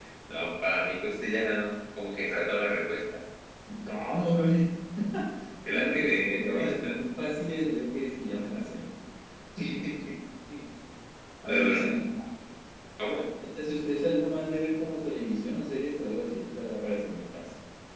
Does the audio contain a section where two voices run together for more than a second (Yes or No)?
Yes